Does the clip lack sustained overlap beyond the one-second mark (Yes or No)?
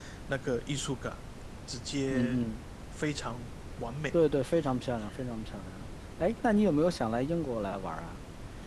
Yes